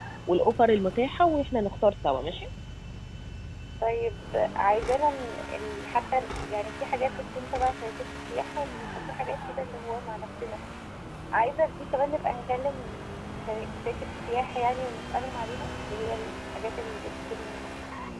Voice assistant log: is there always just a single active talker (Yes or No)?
Yes